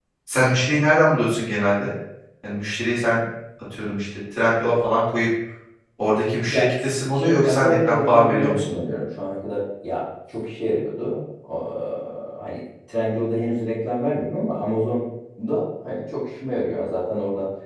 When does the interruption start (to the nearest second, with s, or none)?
6 s